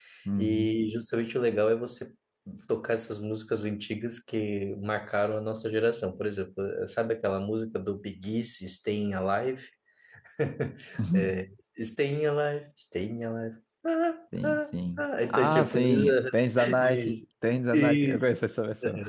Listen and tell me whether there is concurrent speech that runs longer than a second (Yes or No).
Yes